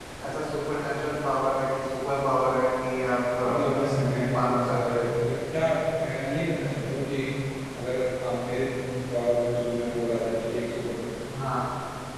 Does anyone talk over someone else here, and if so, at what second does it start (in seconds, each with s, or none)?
3.4 s